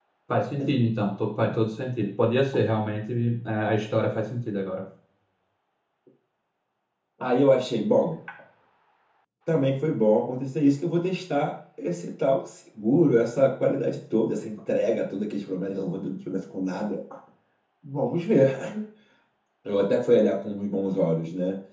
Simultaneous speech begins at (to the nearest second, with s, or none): none